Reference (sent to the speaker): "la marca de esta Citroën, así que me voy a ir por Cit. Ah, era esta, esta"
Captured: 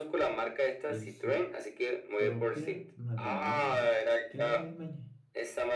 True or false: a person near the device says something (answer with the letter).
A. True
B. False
A